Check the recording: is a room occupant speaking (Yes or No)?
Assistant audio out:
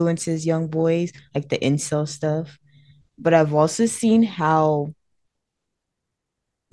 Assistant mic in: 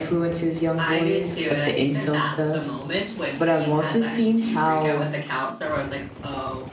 Yes